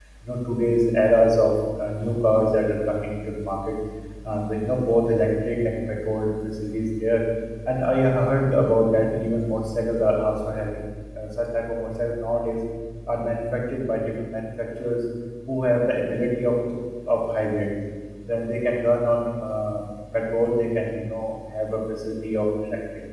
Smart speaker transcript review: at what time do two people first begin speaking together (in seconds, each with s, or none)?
none